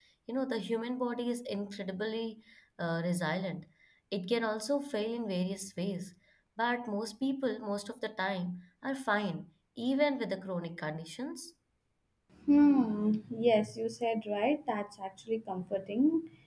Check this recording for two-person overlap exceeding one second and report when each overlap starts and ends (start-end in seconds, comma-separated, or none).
none